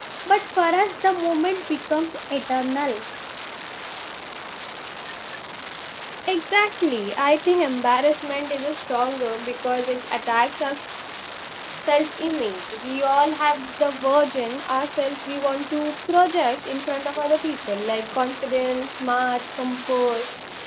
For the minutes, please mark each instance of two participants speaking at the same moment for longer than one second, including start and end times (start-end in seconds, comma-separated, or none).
none